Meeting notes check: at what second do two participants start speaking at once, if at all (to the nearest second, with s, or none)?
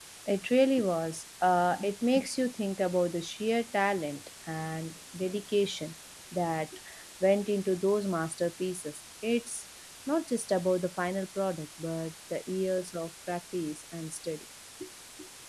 none